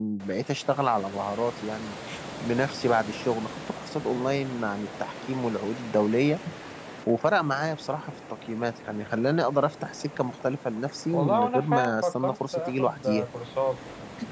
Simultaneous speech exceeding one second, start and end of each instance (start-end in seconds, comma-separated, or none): 11.1-13.2